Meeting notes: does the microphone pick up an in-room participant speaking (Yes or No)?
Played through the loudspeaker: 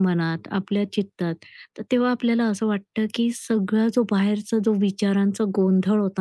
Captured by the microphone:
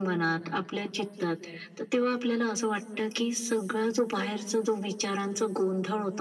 No